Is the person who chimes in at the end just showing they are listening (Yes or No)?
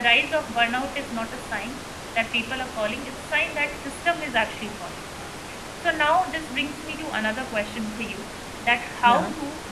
Yes